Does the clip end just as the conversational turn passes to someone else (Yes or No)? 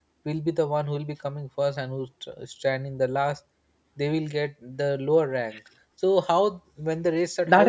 Yes